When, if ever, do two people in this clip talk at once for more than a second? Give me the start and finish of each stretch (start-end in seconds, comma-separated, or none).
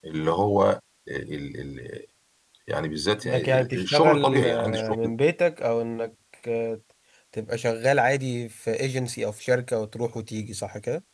3.2-5.1